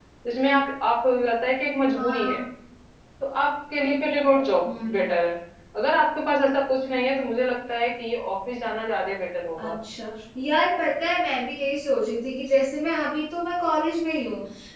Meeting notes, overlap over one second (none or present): none